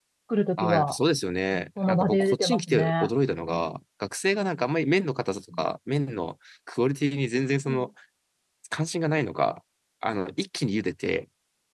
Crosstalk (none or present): present